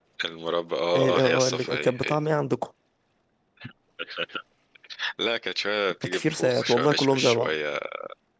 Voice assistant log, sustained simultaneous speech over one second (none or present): present